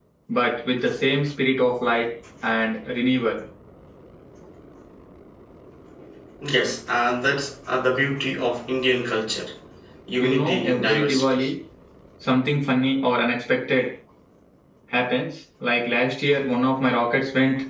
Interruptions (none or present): present